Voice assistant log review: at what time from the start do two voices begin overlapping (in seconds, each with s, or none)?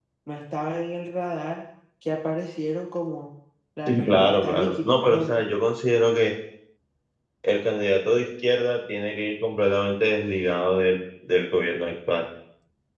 3.9 s